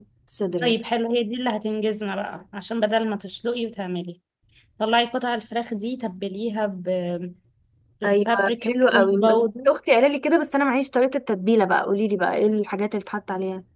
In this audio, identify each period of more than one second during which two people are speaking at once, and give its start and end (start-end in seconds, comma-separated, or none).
8.0-9.2